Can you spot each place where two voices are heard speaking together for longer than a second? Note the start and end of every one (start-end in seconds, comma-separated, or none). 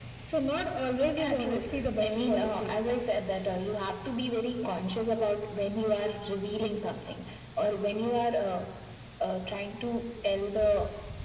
1.2-2.7